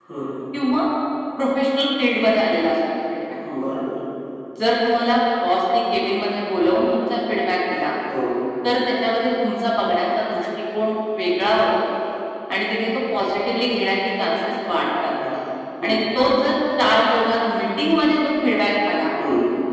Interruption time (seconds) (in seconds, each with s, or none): none